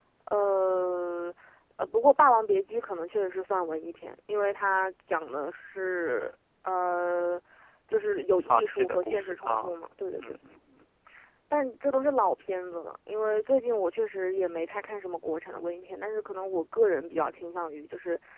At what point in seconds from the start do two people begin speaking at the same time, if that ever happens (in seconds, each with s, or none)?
8.4 s